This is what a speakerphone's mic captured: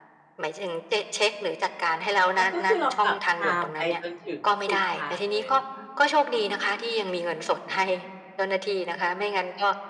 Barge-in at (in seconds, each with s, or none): 2.3 s